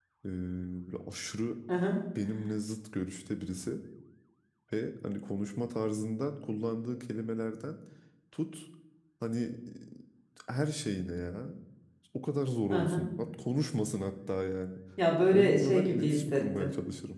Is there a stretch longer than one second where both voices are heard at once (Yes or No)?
Yes